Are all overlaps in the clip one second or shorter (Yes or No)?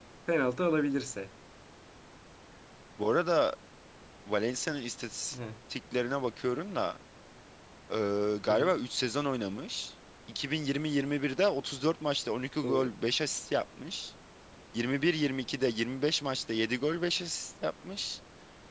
Yes